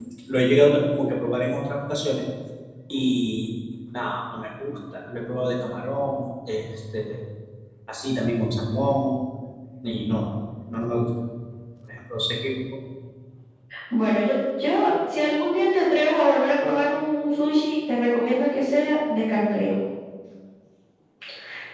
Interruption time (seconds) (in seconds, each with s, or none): none